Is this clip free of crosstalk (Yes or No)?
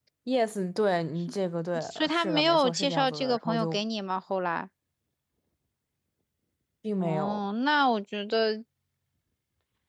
No